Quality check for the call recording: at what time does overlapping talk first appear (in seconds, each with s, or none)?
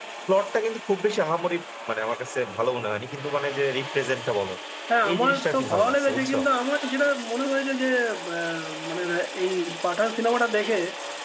5.1 s